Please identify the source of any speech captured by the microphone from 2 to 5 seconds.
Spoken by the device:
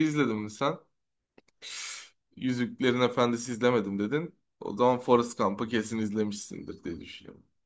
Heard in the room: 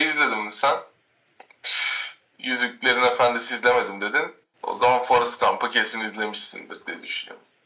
echo only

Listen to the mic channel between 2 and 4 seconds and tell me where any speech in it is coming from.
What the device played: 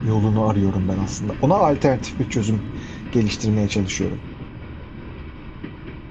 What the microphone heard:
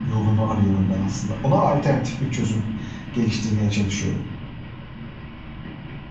echo only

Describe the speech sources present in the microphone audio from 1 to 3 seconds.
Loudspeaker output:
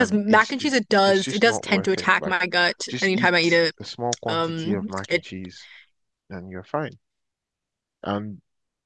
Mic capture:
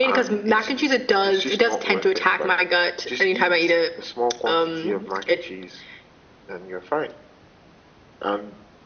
echo only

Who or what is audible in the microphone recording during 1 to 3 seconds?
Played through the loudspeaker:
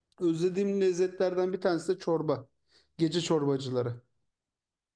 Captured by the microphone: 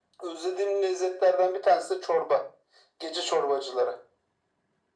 echo only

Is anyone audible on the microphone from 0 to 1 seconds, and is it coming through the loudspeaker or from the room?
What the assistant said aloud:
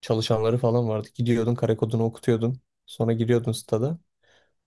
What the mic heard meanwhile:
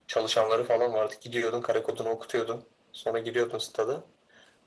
echo only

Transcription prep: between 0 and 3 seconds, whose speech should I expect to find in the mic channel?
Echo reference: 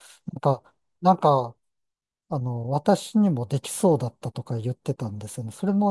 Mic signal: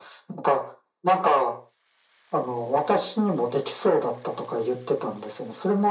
echo only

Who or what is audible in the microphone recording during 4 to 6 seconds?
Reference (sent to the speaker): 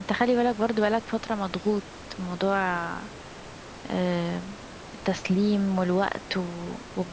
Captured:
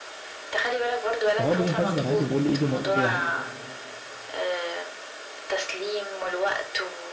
echo only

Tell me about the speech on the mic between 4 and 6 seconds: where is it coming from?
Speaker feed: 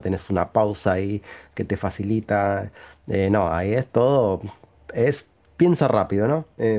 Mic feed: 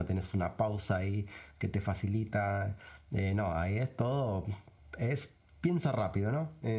echo only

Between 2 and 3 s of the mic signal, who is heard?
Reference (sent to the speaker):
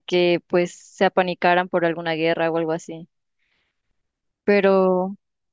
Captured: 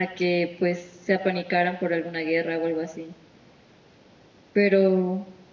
echo only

